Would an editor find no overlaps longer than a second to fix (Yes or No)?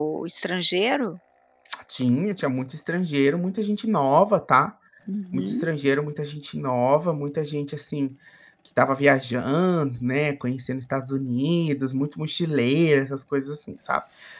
Yes